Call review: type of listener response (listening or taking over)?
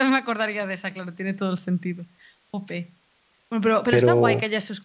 listening